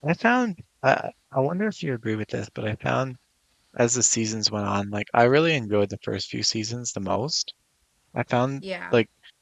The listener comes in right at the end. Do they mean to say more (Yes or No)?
No